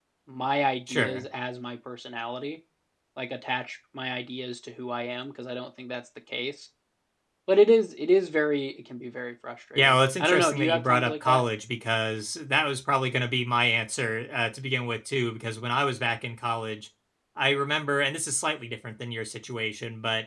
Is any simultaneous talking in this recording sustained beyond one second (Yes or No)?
Yes